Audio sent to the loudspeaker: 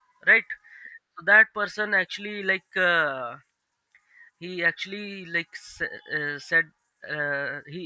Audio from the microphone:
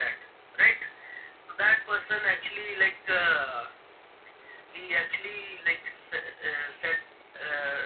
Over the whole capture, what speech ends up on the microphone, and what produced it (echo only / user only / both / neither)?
echo only